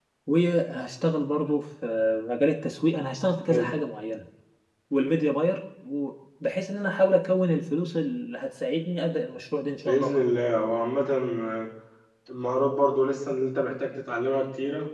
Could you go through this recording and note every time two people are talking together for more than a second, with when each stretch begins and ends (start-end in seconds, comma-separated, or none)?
none